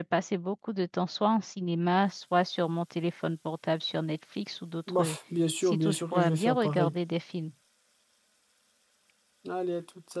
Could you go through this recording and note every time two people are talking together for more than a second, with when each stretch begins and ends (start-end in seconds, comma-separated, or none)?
5.6-6.9